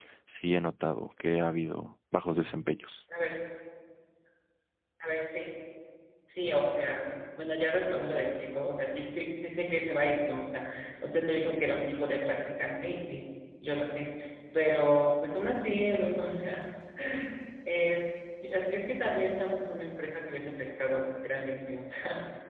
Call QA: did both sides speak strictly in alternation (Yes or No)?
Yes